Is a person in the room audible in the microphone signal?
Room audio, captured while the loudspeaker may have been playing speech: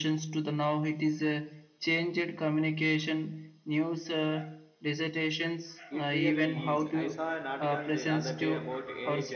Yes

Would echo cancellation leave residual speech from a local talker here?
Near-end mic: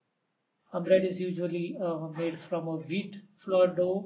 Yes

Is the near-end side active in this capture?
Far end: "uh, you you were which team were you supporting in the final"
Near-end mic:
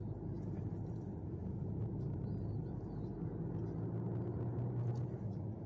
No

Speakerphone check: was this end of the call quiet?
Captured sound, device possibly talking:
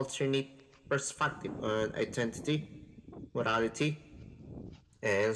Yes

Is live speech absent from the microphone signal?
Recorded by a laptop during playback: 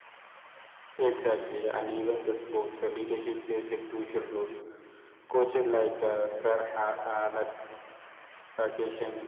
Yes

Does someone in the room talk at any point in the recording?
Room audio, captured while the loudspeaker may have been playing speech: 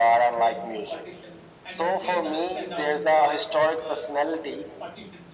Yes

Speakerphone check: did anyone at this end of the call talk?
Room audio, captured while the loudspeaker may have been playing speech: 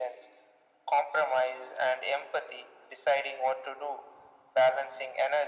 No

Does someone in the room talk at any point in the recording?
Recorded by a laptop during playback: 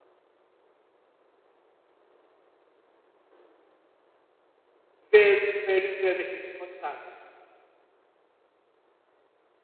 Yes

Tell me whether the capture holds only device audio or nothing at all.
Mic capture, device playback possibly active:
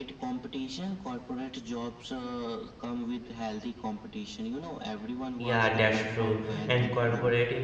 No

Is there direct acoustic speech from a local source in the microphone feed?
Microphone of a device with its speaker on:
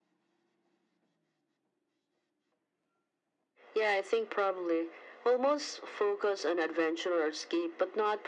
No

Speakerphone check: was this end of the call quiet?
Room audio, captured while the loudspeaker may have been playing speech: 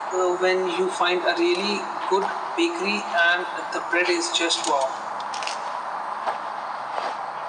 Yes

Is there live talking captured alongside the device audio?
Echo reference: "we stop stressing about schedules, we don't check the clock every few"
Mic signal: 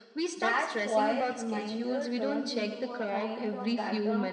Yes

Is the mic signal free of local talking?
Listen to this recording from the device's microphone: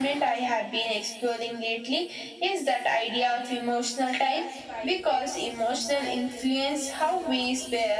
No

